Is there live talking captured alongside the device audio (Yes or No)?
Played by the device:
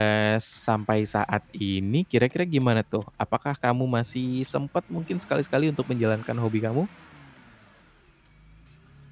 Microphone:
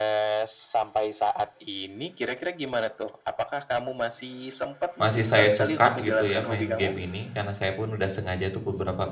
Yes